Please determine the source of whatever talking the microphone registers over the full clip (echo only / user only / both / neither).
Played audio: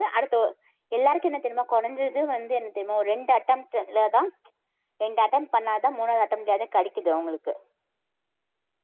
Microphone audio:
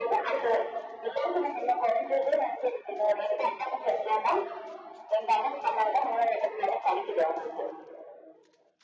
echo only